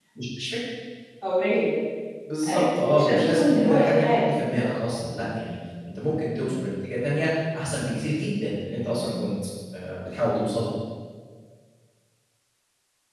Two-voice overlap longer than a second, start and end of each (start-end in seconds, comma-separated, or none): 2.5-4.3